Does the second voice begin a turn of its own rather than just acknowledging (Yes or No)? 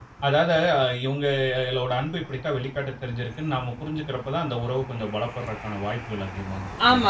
Yes